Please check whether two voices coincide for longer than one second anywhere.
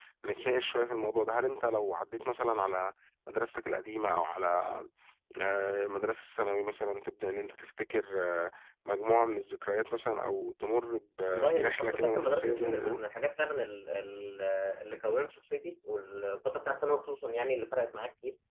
Yes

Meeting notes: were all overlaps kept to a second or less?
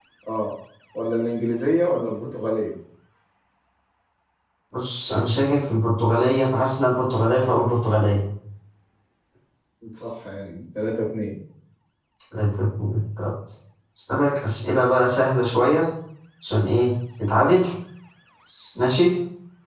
Yes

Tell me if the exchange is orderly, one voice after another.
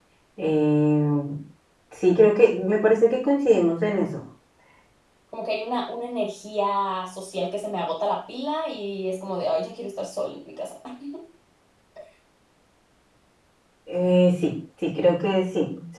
Yes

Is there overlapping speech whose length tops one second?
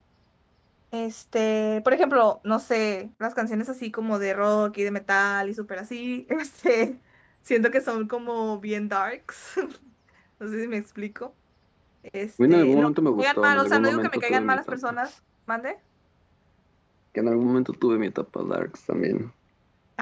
Yes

